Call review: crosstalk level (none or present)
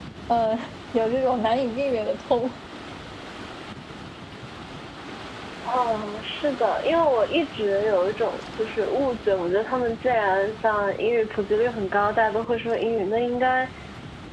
none